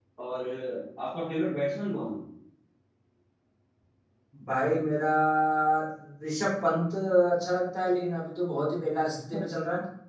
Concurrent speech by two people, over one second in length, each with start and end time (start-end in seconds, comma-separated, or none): none